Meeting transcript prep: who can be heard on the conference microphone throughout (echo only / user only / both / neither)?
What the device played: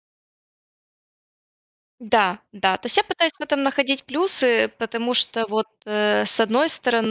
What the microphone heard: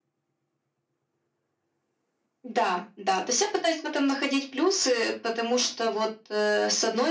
echo only